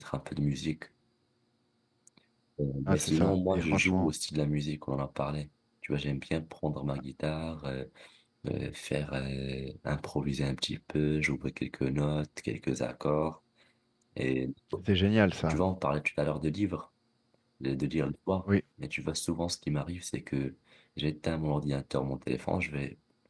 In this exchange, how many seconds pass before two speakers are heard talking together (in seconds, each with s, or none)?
2.9 s